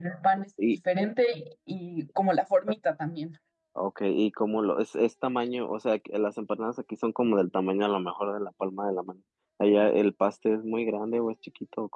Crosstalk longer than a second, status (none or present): none